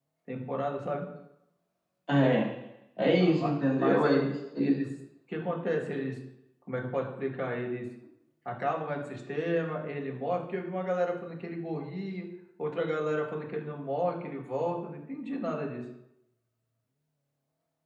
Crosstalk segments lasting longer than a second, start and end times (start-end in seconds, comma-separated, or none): 3.2-4.8